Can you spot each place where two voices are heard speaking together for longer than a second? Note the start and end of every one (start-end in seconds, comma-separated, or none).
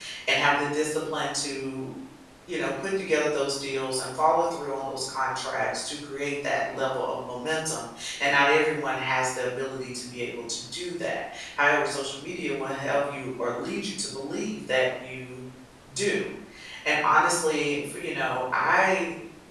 none